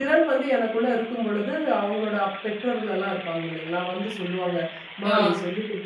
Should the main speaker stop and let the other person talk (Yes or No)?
No